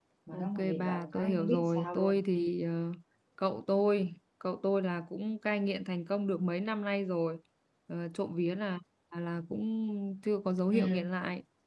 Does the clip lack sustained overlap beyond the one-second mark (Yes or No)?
No